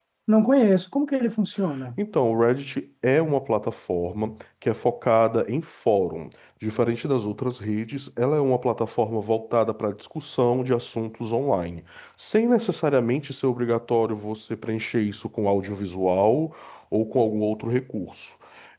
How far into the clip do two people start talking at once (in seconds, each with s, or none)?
none